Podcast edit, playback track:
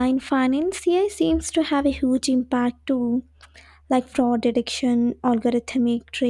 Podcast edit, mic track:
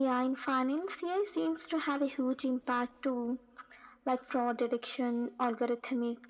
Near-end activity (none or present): none